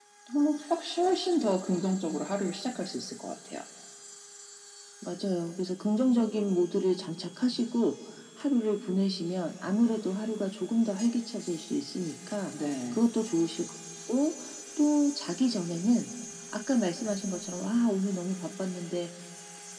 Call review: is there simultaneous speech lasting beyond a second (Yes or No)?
No